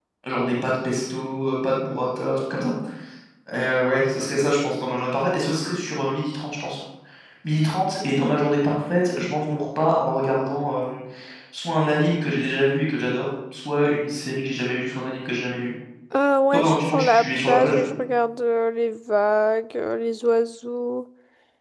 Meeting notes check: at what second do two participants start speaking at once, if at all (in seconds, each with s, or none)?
16.5 s